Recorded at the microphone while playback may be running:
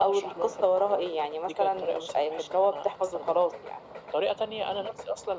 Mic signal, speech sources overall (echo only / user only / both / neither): echo only